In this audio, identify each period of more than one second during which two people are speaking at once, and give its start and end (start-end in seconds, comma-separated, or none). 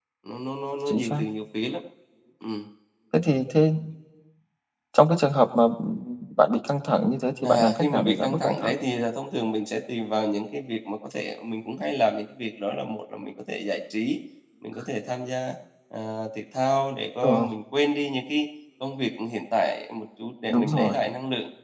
7.4-8.7